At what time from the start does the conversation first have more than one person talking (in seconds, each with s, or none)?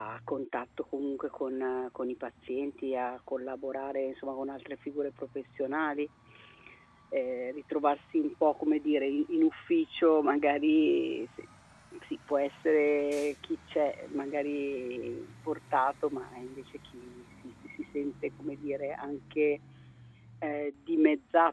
none